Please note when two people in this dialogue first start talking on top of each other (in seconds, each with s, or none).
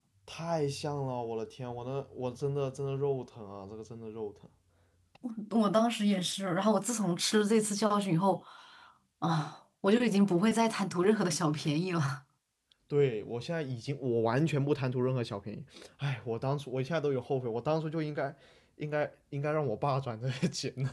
none